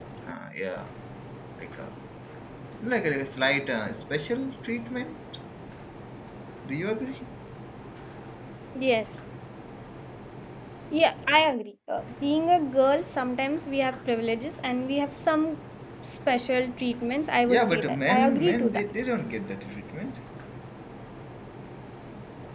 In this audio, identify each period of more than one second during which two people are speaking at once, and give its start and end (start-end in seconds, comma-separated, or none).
17.5-18.8